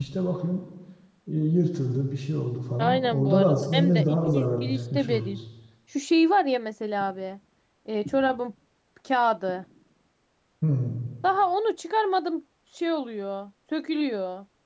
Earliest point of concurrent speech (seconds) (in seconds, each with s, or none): 2.8 s